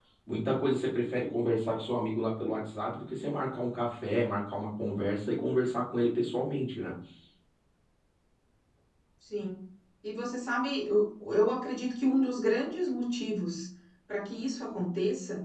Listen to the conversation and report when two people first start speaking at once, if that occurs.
none

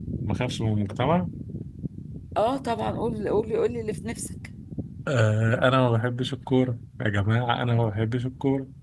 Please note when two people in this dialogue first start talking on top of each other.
none

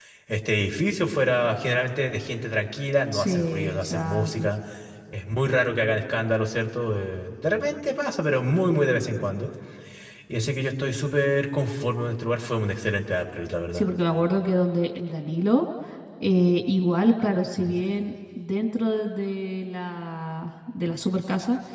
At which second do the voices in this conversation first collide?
3.1 s

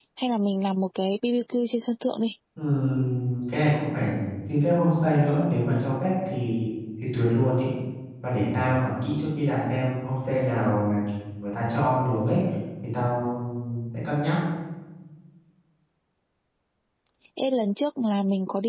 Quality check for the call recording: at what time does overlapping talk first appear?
none

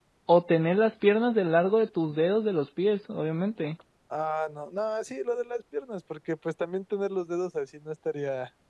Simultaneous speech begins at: none

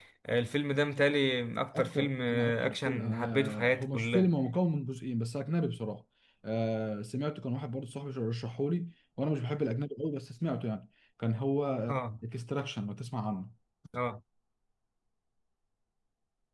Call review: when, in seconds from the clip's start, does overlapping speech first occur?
1.7 s

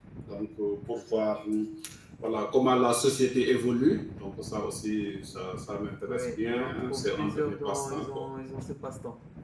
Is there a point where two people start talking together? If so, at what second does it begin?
6.1 s

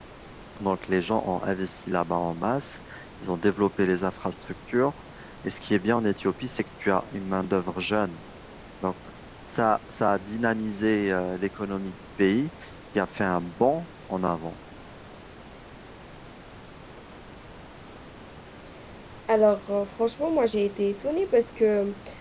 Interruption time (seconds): none

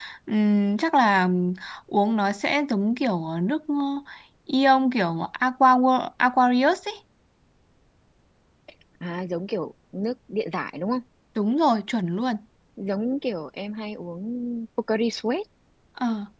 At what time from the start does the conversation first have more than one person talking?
none

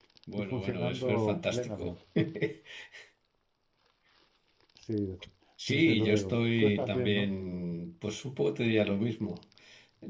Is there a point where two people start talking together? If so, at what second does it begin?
0.5 s

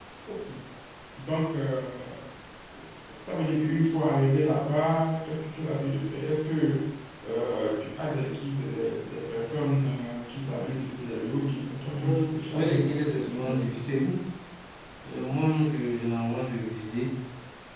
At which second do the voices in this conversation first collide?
11.9 s

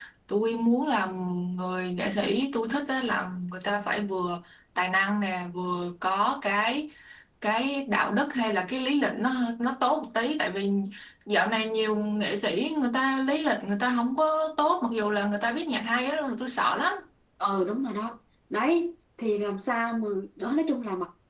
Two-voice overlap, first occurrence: none

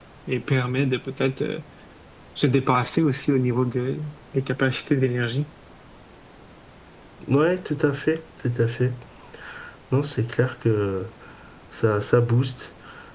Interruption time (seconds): none

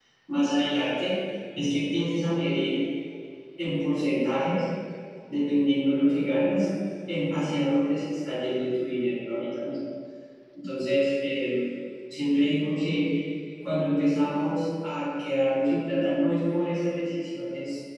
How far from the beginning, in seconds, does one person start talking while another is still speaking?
none

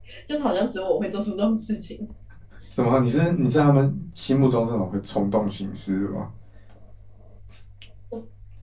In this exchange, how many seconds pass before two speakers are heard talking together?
none

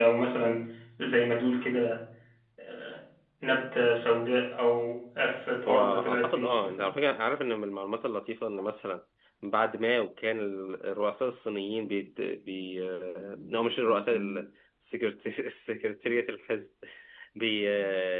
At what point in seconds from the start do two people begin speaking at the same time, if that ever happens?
5.7 s

